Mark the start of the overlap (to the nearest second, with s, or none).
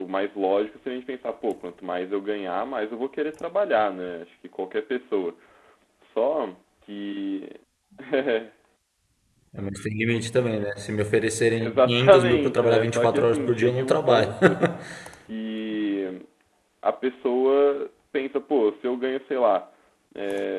12 s